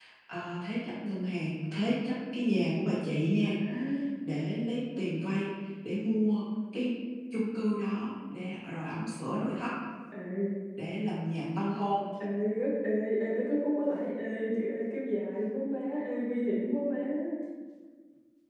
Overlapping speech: No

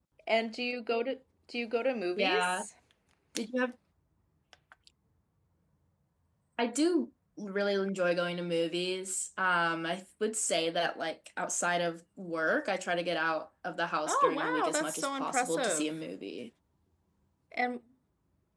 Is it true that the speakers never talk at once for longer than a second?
No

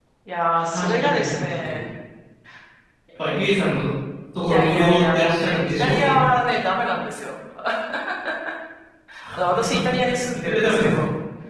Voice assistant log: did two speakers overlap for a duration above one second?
Yes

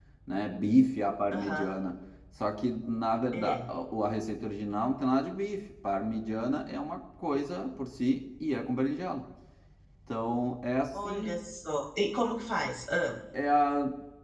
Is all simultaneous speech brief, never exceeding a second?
Yes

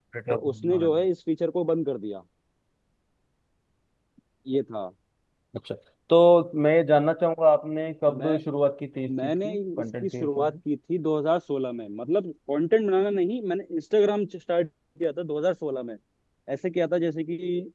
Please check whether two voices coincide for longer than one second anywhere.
Yes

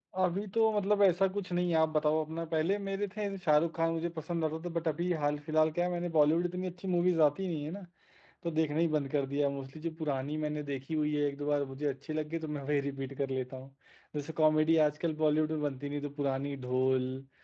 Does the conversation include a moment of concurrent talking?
No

